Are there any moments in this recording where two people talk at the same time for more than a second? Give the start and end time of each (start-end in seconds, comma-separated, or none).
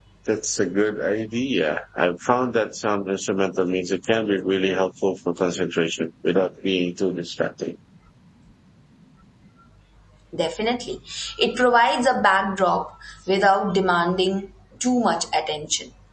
none